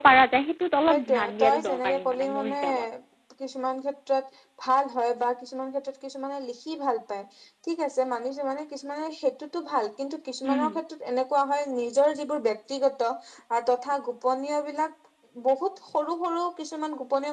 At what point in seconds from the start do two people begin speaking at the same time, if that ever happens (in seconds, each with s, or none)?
0.9 s